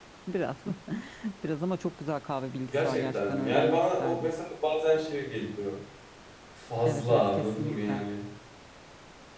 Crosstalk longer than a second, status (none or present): present